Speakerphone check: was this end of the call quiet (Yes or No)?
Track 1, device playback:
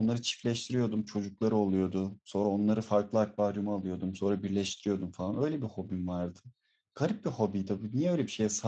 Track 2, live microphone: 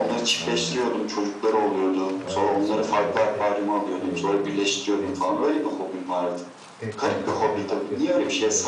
No